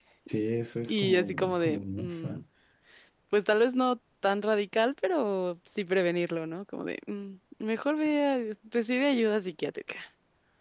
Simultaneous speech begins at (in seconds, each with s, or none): 0.8 s